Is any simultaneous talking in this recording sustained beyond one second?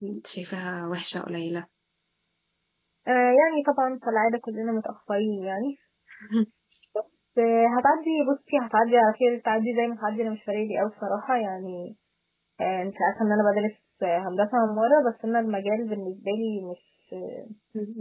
No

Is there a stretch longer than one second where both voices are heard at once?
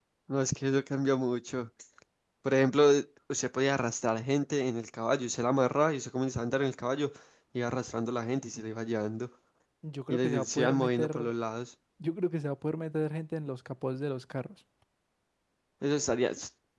Yes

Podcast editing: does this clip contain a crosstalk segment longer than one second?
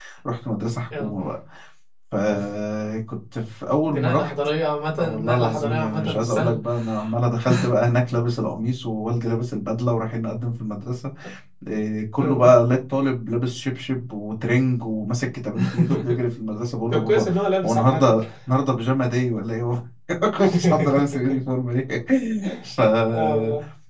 Yes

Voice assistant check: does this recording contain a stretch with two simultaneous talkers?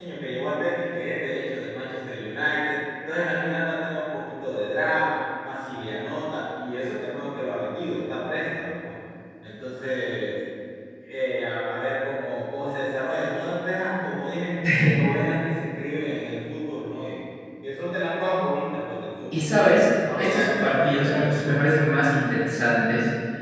Yes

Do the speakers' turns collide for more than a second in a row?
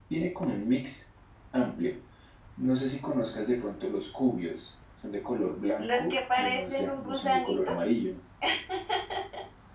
Yes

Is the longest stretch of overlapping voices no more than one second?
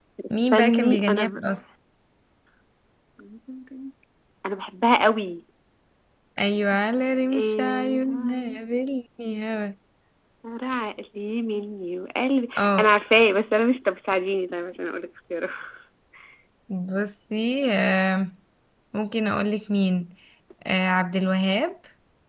No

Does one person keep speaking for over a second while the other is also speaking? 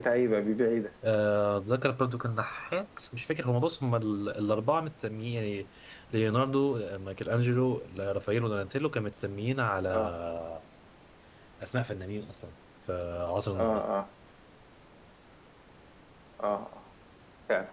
No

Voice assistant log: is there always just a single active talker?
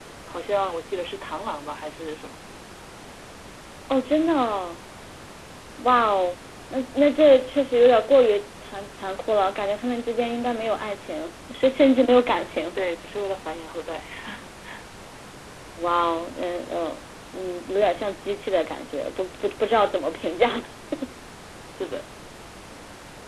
Yes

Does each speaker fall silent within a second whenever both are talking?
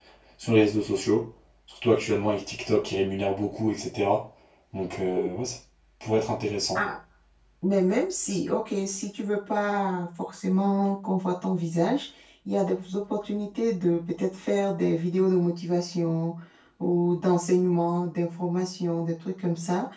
Yes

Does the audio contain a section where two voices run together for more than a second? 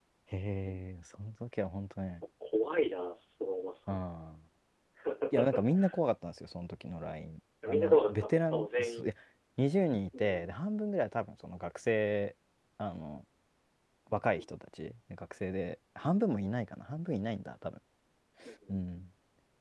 Yes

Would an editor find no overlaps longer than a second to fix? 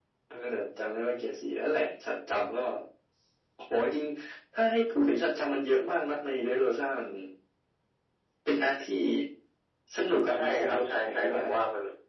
No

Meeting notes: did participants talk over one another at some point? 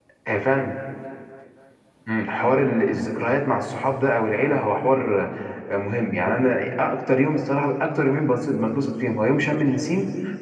No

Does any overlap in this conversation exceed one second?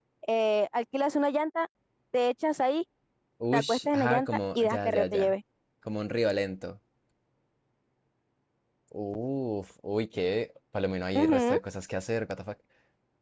Yes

